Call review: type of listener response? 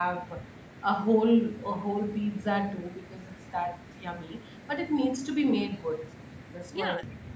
taking over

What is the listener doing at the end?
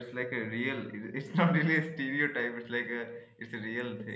taking over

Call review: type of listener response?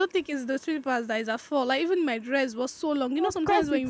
taking over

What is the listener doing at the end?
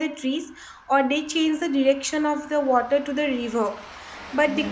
listening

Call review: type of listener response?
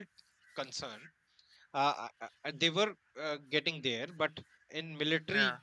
listening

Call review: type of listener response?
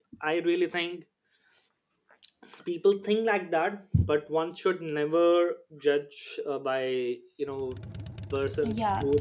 taking over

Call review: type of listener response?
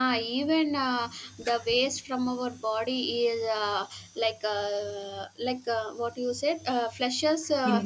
listening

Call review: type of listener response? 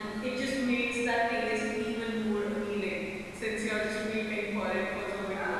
taking over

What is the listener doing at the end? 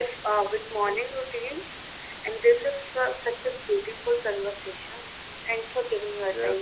taking over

